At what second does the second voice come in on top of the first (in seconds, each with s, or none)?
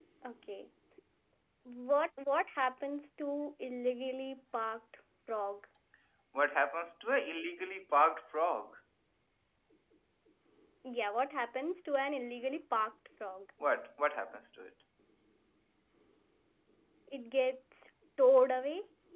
none